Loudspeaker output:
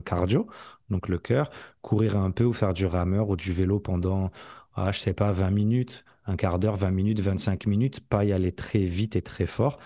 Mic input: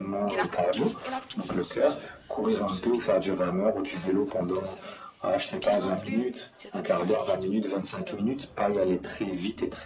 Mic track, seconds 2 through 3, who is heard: both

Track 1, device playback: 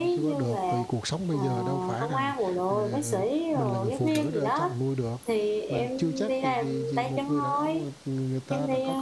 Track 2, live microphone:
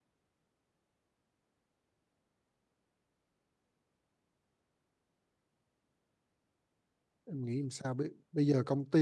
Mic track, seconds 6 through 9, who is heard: user only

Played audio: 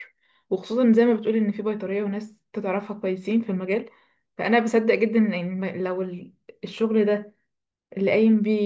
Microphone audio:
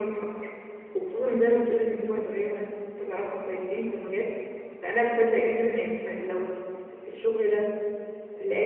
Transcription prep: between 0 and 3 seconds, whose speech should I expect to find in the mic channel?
echo only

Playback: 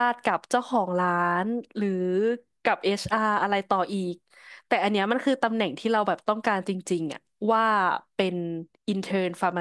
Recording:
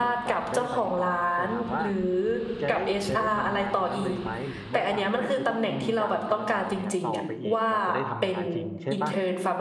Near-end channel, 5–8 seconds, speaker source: both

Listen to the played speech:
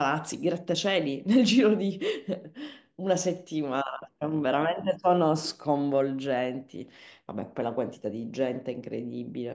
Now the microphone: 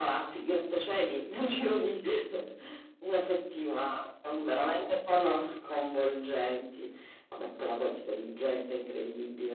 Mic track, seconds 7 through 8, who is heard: echo only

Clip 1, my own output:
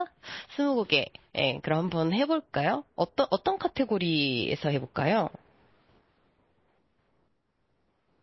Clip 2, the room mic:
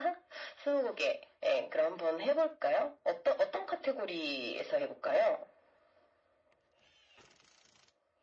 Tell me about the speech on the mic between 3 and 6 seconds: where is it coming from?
echo only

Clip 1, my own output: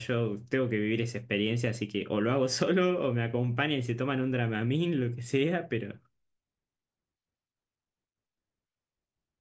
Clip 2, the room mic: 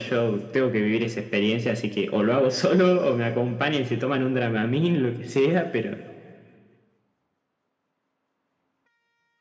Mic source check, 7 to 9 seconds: neither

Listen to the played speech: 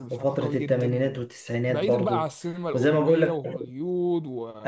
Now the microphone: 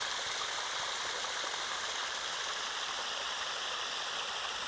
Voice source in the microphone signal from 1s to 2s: neither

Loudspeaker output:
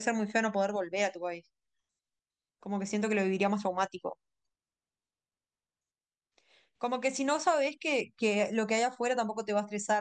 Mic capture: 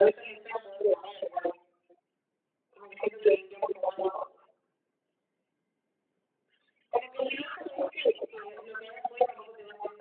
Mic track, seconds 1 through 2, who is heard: echo only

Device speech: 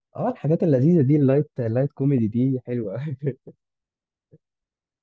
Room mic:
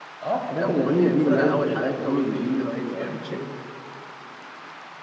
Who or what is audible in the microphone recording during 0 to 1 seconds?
both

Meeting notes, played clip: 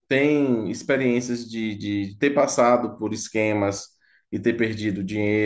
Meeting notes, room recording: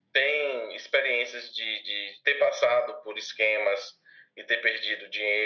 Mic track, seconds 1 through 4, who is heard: echo only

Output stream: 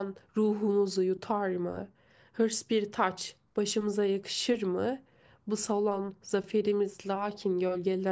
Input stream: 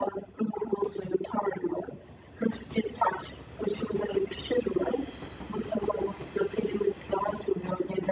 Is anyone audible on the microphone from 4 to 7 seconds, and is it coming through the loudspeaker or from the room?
echo only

